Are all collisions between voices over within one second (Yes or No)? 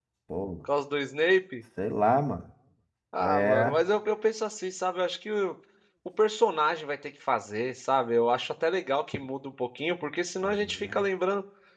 Yes